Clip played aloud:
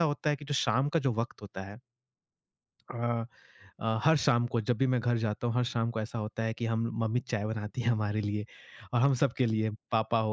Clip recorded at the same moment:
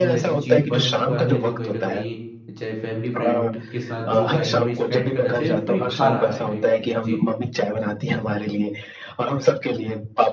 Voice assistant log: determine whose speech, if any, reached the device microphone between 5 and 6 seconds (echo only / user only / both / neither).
both